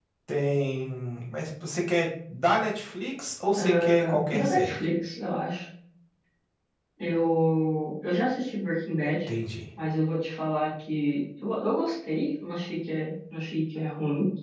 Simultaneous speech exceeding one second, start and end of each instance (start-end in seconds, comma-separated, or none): 3.5-4.8